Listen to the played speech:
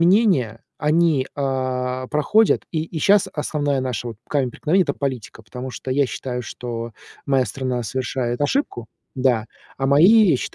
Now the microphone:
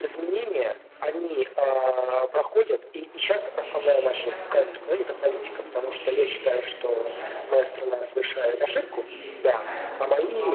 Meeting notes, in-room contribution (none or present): present